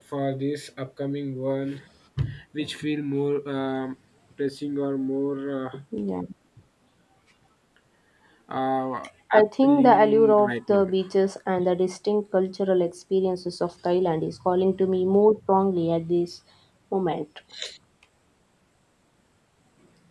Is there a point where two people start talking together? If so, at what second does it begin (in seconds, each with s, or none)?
9.3 s